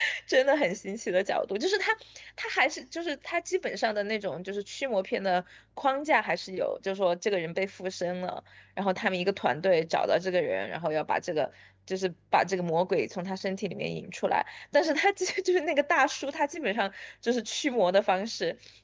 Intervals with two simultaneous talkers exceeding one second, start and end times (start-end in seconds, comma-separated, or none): none